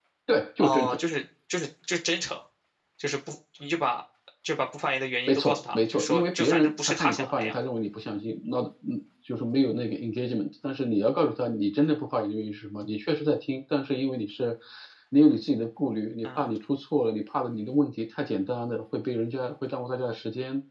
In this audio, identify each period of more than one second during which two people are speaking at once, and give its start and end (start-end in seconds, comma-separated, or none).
5.3-7.6